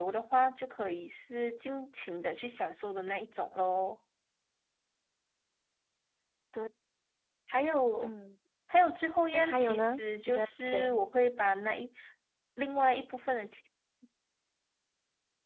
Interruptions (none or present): present